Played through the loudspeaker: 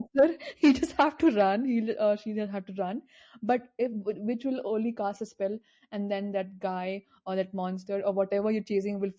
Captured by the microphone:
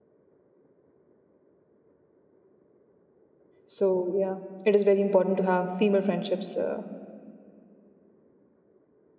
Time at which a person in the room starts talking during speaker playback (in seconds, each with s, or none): 3.7 s